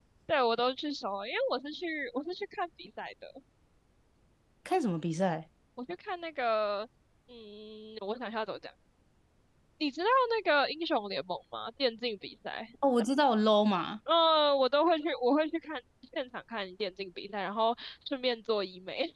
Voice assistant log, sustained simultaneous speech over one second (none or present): none